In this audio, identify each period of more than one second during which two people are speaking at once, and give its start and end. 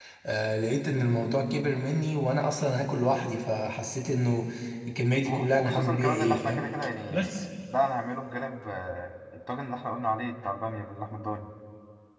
5.2-6.6

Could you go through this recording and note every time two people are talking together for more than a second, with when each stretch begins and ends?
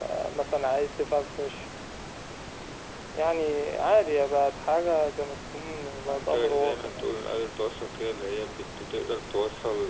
6.0-7.3

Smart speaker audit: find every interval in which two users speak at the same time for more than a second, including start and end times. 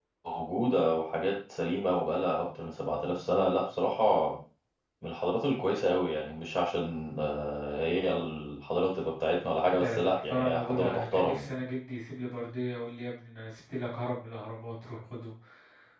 9.8-11.5

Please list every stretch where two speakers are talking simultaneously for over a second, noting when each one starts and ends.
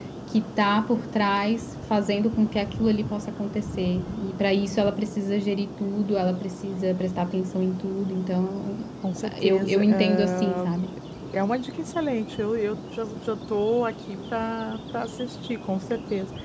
9.4-10.7

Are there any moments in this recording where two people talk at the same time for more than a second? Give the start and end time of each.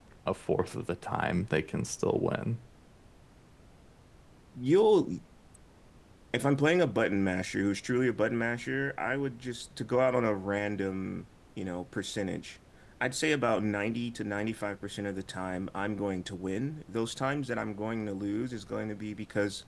none

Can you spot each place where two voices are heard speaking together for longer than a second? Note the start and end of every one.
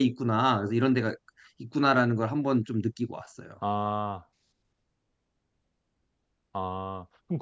none

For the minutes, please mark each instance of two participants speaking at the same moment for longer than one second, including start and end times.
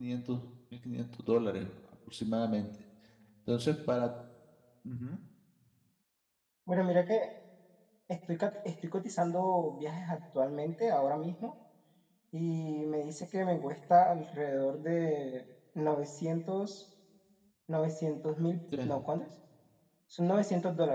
none

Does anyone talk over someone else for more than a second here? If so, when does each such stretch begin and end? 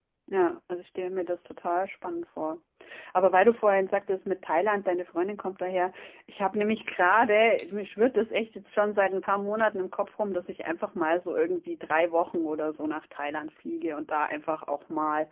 none

